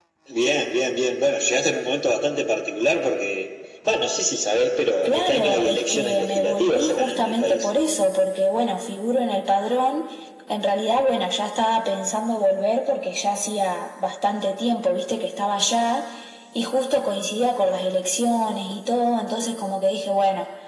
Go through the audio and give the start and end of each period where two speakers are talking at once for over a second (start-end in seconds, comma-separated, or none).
5.0-7.7